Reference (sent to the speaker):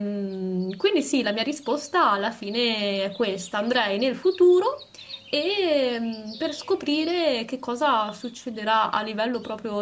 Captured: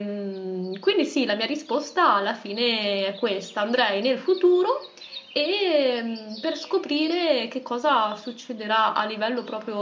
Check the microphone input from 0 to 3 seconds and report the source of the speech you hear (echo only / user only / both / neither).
echo only